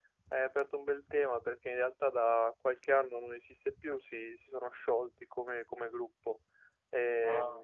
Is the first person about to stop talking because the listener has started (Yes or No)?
No